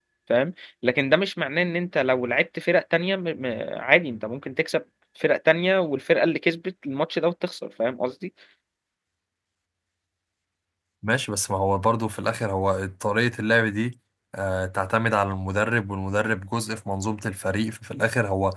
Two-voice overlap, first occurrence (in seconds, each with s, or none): none